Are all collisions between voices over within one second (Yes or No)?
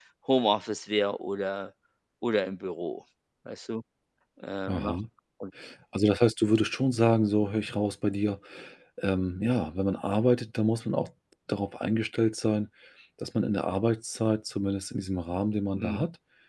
Yes